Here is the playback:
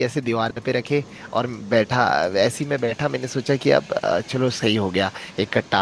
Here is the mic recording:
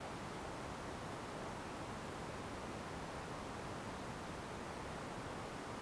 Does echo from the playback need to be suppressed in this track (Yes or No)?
No